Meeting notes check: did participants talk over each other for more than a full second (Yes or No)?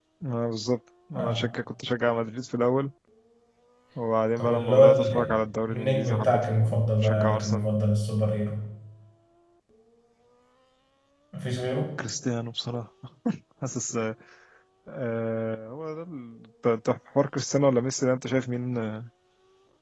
Yes